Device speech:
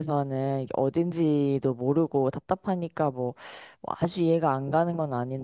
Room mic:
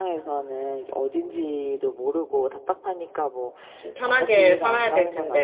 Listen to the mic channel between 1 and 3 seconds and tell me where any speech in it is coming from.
echo only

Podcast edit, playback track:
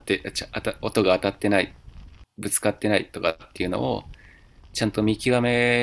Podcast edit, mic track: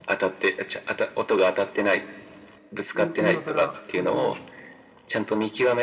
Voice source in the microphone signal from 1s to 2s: echo only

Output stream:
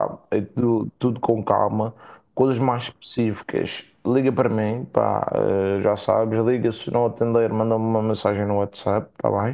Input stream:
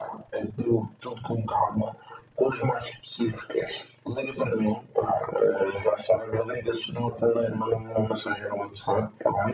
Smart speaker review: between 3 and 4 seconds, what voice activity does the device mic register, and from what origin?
echo only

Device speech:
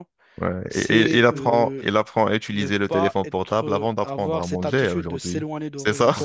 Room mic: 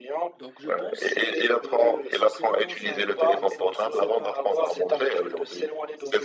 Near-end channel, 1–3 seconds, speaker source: both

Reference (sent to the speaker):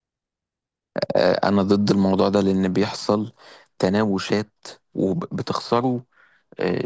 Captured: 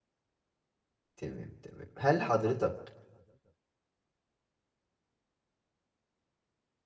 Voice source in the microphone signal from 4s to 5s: neither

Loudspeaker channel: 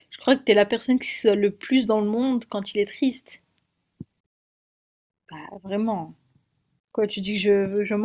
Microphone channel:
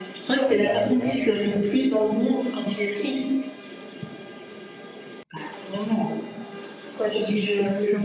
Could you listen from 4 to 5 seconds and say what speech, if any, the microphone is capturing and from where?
neither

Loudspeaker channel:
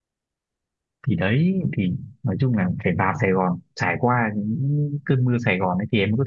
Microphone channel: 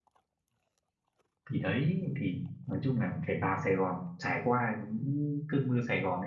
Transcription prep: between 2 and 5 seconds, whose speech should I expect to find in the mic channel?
echo only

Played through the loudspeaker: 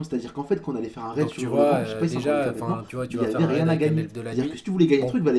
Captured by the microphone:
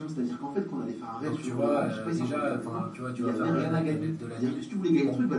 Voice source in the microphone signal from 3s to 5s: echo only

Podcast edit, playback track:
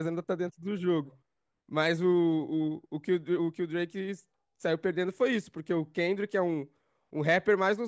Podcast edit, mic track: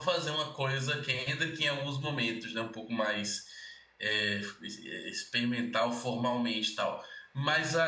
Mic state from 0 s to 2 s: user only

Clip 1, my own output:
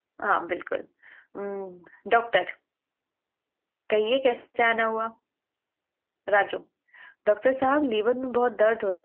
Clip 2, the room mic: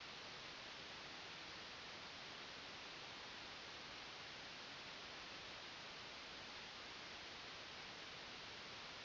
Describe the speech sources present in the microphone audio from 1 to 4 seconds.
neither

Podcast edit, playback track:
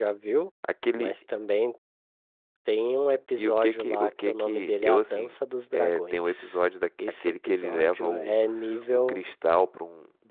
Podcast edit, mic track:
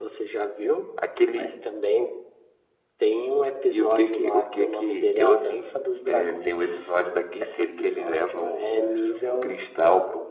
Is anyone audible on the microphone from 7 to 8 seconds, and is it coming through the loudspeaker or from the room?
echo only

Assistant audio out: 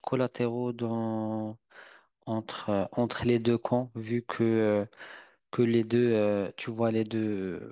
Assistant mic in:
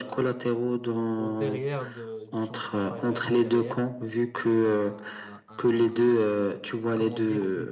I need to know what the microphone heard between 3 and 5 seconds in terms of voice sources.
both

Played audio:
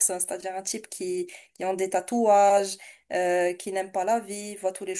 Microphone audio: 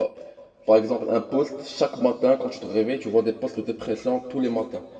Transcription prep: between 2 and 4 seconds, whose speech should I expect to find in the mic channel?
user only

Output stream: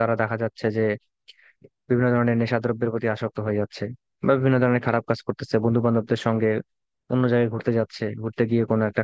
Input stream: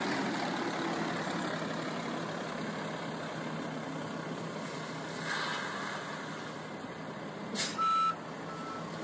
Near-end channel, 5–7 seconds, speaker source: neither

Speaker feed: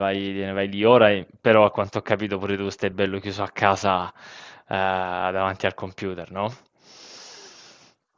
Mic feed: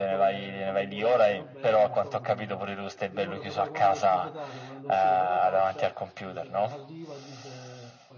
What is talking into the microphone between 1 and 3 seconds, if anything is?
both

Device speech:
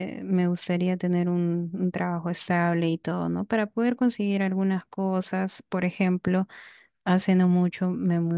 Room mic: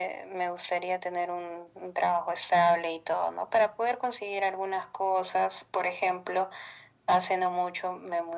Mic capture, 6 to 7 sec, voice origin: echo only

